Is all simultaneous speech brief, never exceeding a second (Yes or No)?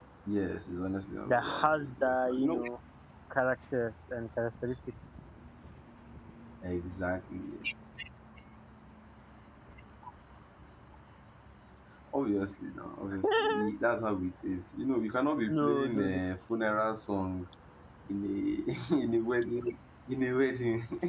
No